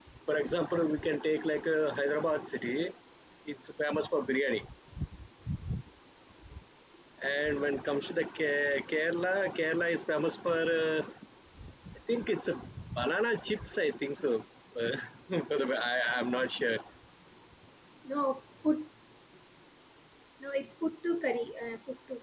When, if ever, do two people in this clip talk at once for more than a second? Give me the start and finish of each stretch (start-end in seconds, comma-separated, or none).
none